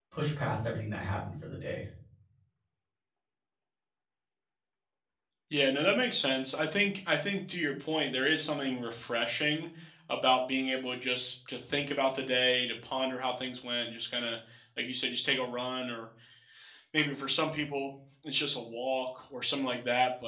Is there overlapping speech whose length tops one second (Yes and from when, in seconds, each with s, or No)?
No